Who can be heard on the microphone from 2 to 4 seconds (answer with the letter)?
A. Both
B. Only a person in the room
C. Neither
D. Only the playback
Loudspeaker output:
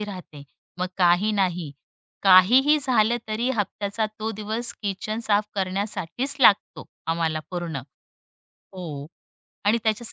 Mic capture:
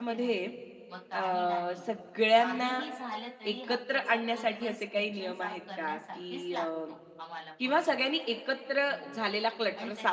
A